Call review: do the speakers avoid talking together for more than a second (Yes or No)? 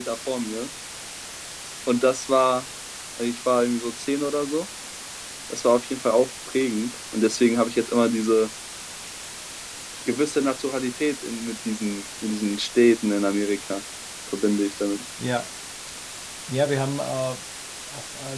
Yes